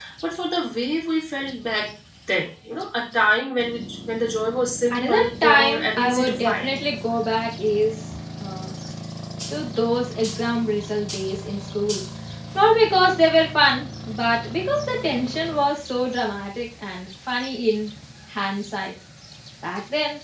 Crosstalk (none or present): present